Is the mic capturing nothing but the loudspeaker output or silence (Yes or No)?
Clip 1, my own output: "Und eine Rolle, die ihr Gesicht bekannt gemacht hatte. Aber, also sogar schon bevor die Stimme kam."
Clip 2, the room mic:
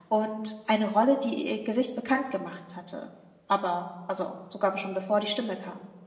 Yes